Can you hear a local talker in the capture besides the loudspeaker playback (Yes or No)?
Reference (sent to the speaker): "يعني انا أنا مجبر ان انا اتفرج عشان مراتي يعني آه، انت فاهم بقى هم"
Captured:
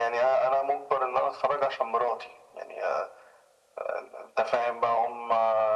No